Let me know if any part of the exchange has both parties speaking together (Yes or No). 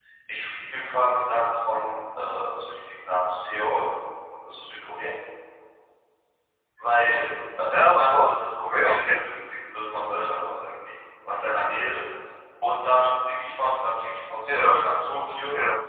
Yes